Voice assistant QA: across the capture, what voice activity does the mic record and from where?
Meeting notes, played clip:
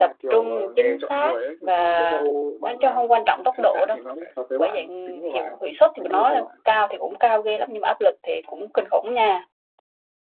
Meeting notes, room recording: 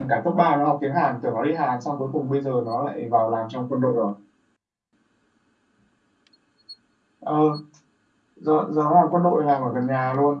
user only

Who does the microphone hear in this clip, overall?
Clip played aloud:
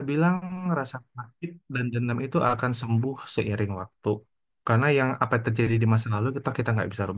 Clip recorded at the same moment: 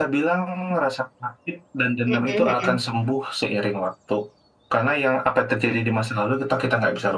both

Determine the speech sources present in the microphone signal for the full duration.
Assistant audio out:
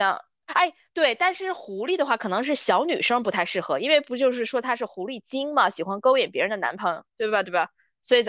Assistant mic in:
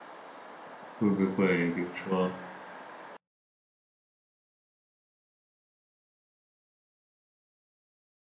user only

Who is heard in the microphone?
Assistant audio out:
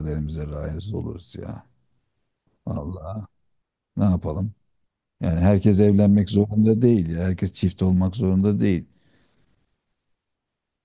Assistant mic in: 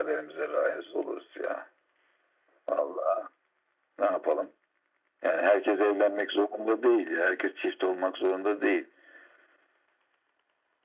echo only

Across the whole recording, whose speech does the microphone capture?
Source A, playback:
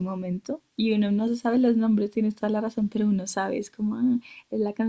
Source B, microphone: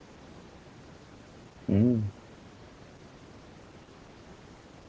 user only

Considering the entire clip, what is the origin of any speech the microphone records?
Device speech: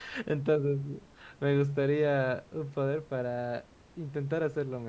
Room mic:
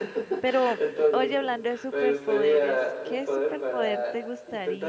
both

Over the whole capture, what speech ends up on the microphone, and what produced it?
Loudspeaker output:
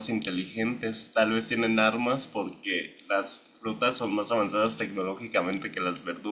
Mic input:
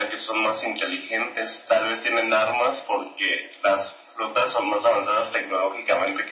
echo only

